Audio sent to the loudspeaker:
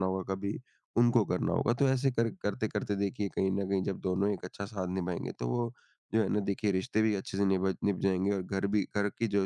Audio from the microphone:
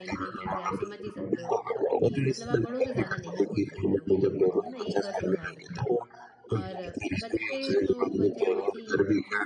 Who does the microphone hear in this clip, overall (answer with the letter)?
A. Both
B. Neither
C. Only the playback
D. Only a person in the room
A